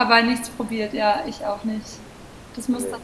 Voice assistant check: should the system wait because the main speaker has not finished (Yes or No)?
Yes